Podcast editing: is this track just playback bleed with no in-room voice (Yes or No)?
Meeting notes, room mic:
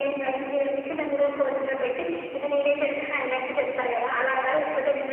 Yes